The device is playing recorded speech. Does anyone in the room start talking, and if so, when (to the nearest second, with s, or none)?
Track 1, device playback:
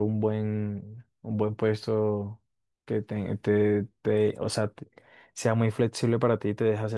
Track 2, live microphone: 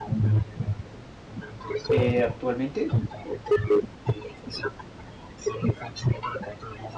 2 s